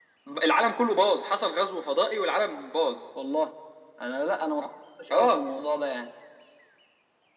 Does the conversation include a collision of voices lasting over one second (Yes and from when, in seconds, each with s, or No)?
No